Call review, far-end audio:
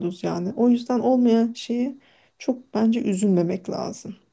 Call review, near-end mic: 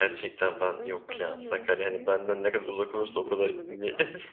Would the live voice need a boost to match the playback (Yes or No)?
No